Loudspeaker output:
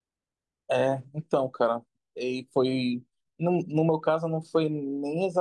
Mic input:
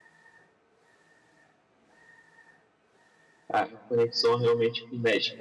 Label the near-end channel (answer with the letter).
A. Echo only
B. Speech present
B